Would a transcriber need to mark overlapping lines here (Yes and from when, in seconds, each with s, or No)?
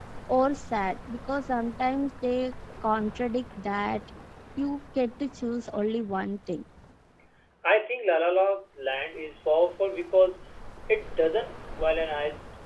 No